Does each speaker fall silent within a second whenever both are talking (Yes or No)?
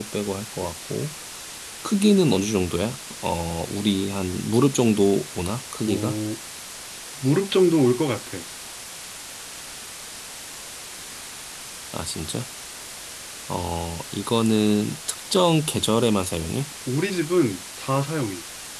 Yes